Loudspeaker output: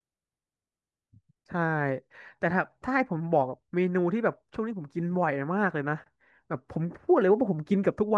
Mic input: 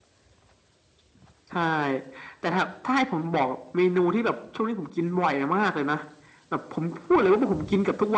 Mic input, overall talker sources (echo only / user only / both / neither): echo only